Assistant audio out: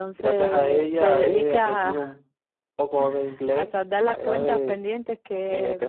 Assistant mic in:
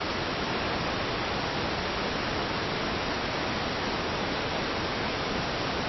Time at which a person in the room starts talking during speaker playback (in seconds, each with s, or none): none